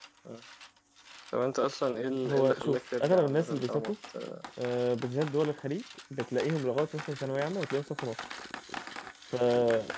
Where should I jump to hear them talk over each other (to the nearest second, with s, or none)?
2 s